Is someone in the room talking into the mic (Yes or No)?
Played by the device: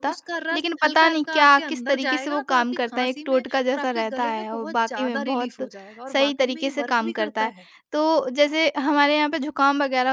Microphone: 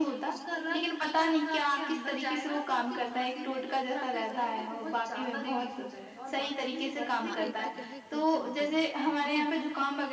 Yes